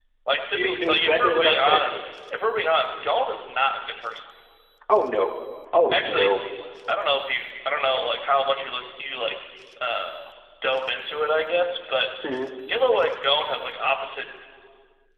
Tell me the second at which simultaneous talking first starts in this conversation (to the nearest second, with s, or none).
1 s